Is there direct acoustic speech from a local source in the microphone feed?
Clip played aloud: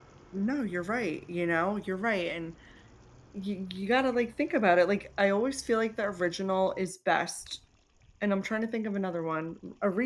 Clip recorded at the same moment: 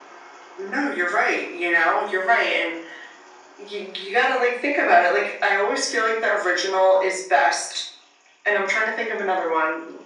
No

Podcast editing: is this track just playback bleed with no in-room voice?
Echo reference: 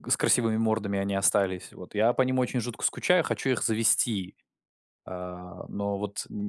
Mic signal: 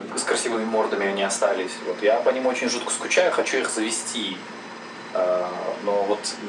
Yes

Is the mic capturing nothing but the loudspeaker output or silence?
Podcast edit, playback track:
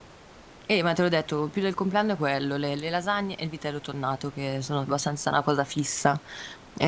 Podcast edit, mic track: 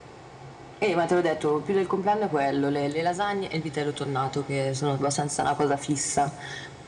Yes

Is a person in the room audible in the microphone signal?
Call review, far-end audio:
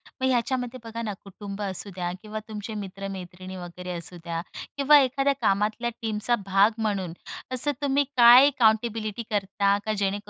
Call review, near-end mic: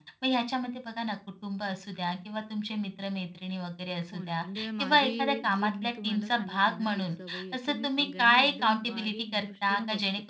Yes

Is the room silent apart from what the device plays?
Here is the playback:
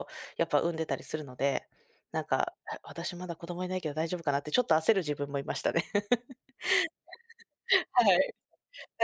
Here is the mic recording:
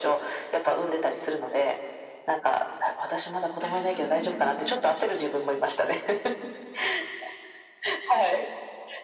No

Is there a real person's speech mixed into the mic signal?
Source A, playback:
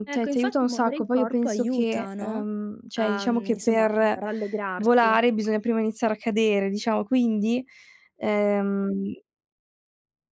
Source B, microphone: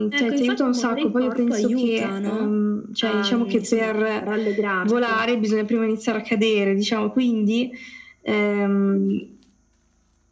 No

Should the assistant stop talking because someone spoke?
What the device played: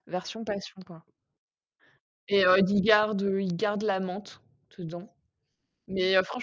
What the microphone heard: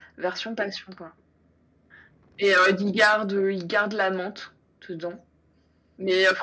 No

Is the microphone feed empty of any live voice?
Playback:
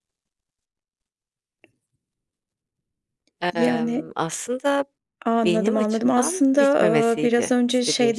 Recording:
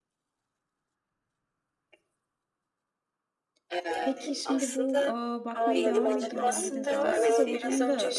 No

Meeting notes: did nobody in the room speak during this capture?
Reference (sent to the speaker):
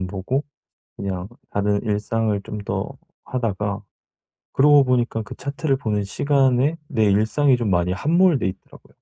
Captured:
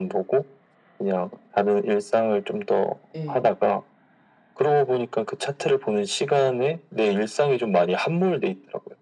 No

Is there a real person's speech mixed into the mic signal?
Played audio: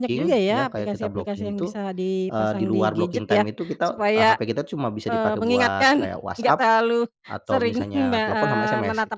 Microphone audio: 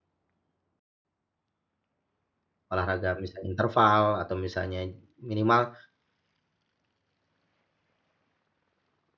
Yes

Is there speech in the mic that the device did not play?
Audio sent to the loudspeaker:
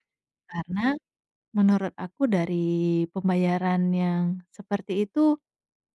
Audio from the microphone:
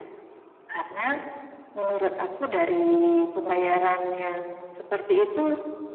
No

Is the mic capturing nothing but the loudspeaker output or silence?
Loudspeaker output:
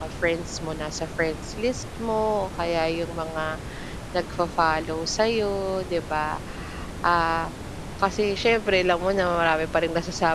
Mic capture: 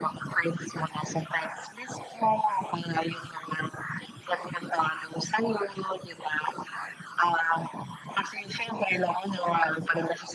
Yes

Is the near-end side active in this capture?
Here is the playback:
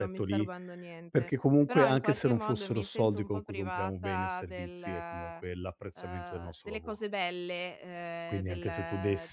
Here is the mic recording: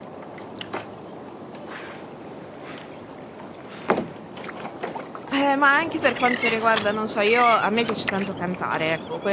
Yes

